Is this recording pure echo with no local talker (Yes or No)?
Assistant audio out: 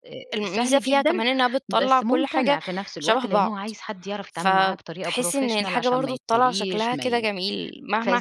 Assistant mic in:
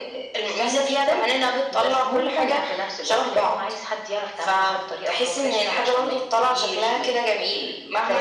Yes